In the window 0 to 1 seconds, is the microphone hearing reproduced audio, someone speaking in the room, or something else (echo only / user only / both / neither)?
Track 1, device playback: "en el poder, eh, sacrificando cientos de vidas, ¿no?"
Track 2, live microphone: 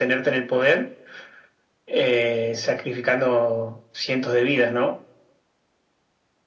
echo only